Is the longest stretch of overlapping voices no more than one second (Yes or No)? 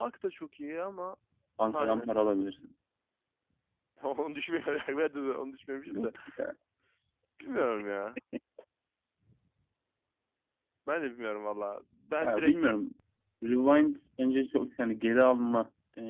Yes